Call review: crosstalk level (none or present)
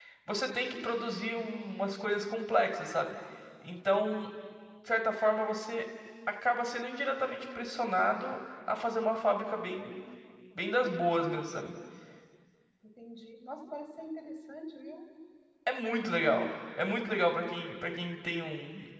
none